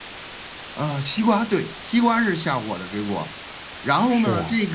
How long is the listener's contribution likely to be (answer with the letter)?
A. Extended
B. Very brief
B